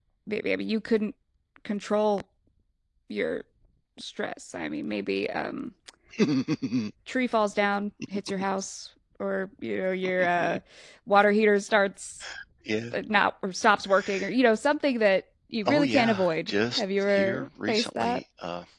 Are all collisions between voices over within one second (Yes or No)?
No